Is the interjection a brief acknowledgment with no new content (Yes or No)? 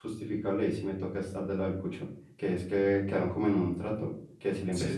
Yes